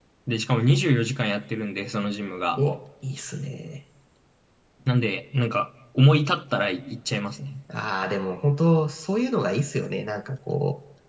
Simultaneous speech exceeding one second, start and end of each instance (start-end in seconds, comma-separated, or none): none